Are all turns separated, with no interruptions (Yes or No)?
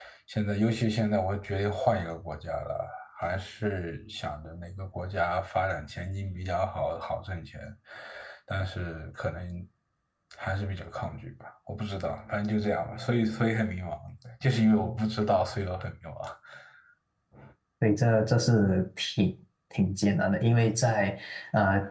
Yes